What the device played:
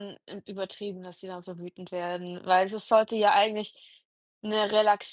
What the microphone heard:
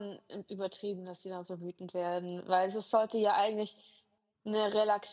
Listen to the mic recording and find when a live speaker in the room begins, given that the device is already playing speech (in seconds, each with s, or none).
none